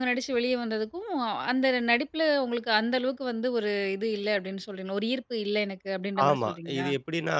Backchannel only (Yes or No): No